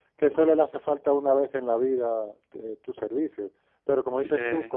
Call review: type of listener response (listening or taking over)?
listening